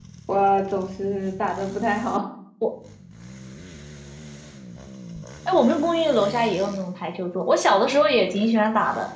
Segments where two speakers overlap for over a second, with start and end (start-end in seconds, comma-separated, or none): none